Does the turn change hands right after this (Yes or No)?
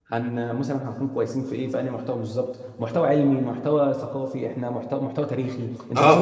Yes